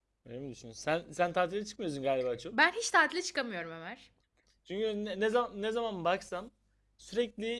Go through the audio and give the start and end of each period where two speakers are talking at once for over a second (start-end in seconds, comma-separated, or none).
none